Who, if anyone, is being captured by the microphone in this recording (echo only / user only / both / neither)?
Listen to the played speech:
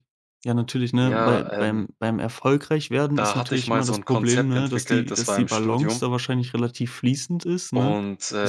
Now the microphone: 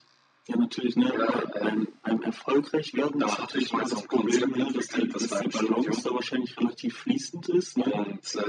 echo only